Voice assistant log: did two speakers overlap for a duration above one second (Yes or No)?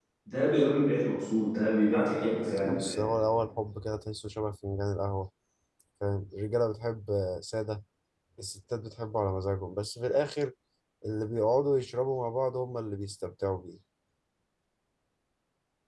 No